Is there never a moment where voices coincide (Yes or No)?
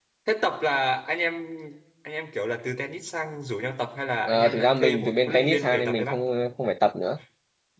No